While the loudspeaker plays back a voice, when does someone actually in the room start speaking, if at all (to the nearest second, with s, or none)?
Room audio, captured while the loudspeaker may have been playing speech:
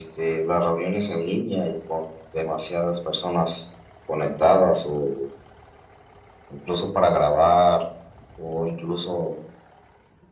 none